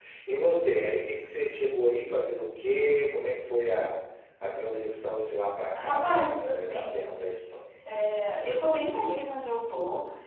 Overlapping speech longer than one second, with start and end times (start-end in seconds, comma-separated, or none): 5.8-7.2